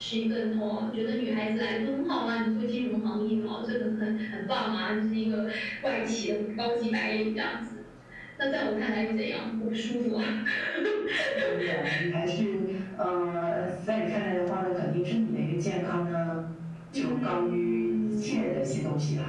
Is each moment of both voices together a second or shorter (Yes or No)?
No